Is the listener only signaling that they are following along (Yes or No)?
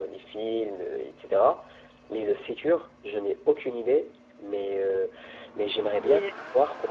Yes